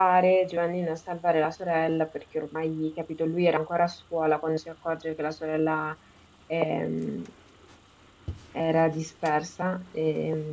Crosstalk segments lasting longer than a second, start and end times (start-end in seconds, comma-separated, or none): none